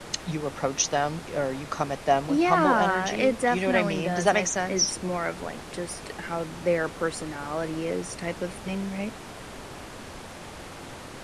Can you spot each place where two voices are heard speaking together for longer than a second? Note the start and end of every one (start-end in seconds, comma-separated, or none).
2.3-4.9